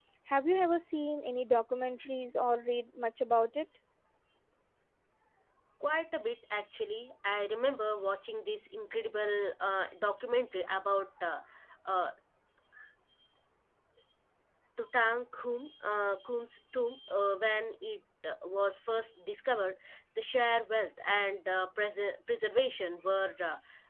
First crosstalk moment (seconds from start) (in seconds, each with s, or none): none